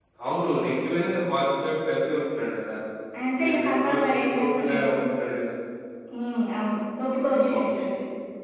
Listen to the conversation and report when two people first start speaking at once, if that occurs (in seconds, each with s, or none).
3.4 s